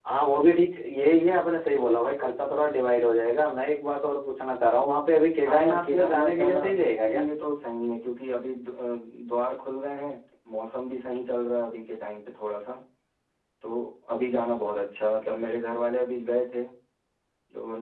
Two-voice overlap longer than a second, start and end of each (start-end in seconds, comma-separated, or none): 5.5-7.2